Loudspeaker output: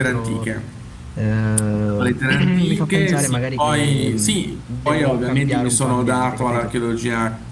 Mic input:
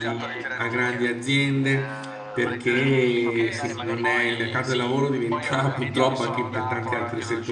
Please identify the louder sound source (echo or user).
user